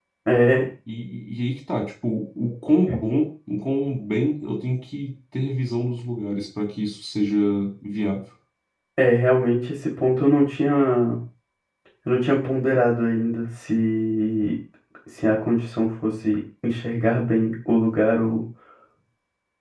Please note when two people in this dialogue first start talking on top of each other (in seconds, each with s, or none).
none